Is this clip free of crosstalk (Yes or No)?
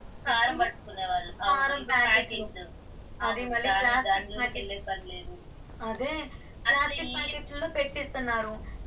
No